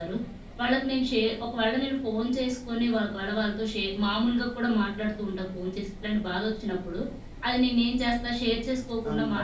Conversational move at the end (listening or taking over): listening